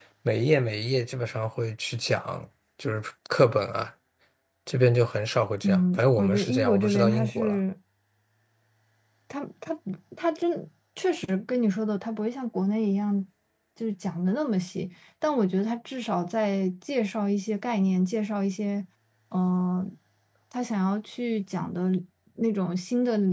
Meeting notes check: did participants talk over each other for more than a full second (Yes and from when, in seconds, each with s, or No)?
Yes, from 5.6 s